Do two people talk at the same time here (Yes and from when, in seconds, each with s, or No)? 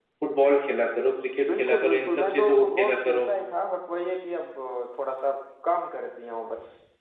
Yes, from 1.4 s